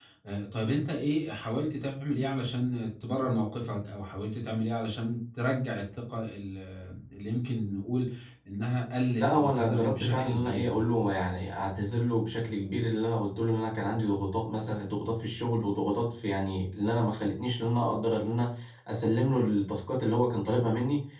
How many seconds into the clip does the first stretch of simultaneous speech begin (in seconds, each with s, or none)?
9.2 s